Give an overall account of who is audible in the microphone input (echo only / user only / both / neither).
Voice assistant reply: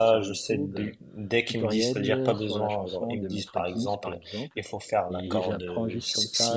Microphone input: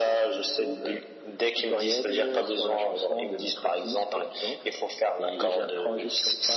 echo only